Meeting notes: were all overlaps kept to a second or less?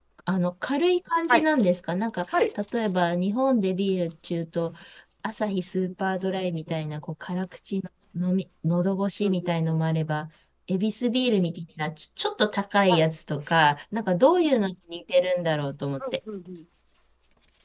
Yes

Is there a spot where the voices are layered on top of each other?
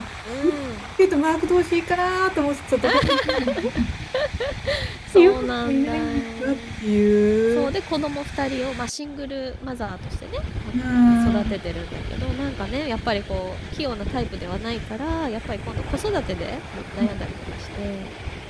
Yes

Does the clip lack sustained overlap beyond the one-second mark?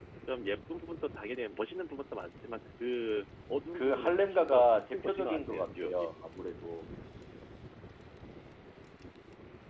No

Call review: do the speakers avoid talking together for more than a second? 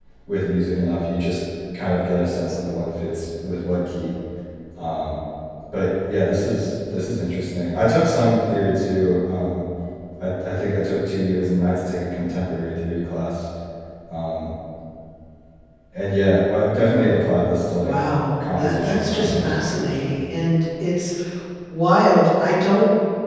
No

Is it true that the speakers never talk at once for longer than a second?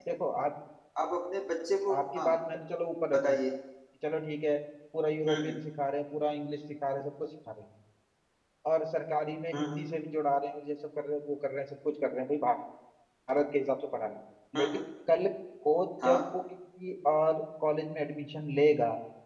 Yes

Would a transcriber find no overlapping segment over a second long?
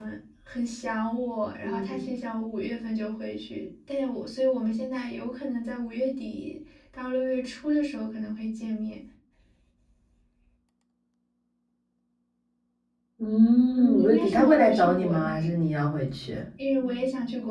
No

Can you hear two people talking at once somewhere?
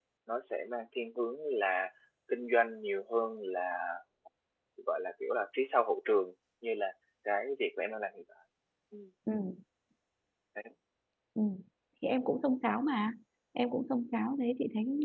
No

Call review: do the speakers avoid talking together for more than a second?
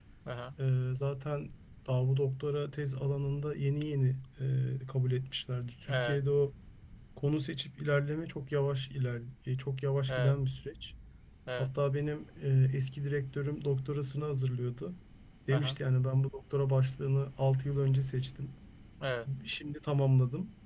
Yes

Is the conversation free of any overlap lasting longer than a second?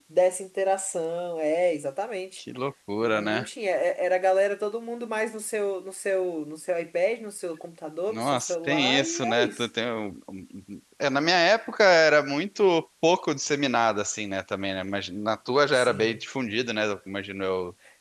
No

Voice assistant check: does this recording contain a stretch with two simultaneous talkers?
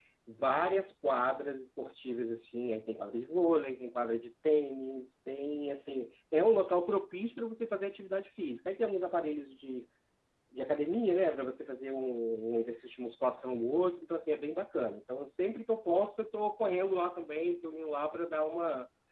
No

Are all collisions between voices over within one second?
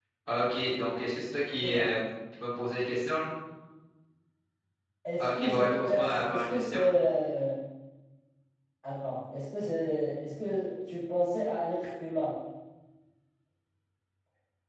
No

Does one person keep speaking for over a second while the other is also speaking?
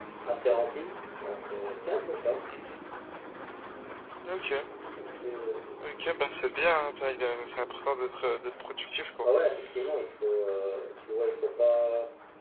No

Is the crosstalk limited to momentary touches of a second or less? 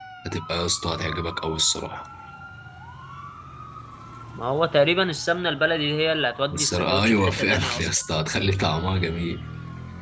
No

